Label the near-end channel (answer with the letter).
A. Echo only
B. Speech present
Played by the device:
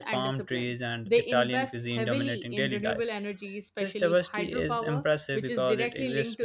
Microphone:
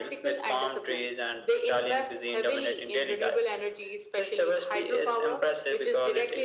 A